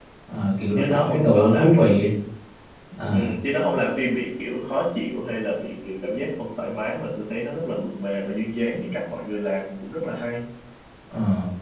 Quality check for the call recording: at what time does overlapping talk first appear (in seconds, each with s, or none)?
0.8 s